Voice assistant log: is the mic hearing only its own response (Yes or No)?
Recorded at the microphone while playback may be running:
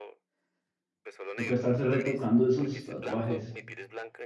No